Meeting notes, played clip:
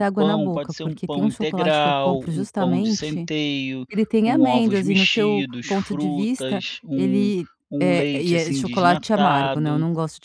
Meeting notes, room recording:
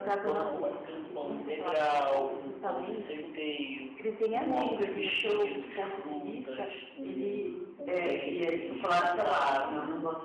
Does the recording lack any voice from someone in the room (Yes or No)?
Yes